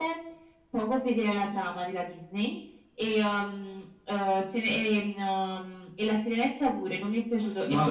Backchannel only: No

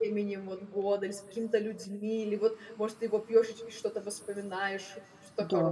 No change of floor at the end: No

